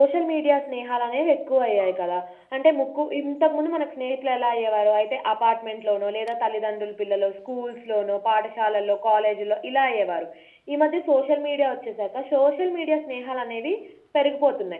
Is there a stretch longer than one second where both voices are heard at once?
No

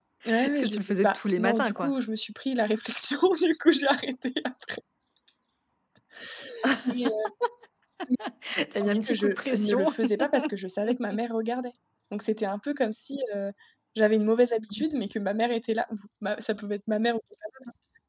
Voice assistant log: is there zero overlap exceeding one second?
No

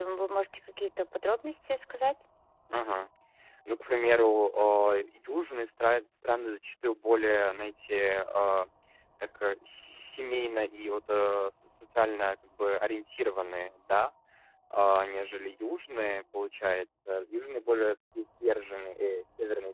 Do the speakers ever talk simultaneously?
No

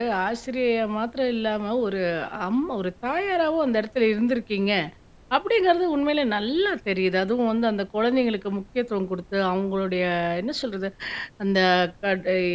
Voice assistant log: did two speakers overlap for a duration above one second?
No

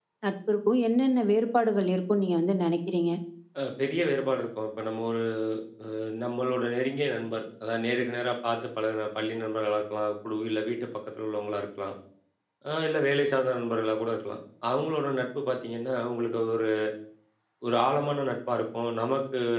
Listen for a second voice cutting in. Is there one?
No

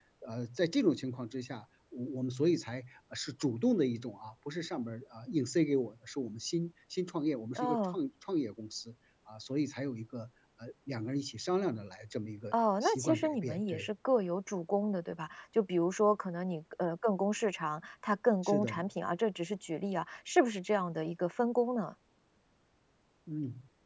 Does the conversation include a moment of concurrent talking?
Yes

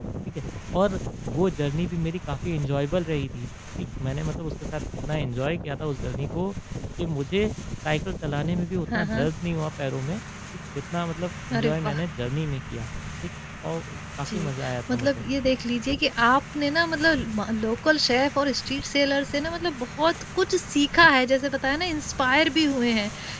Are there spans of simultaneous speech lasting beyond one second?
No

